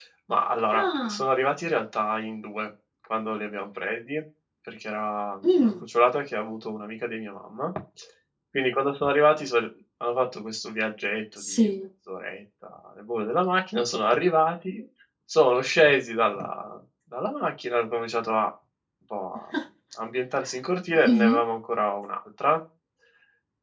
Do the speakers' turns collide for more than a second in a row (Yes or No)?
No